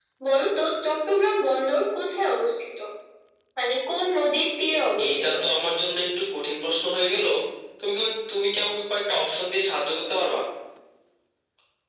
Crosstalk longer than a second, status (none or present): none